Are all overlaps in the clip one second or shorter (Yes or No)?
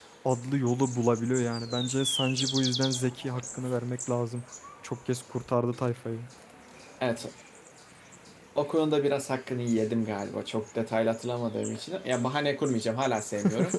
Yes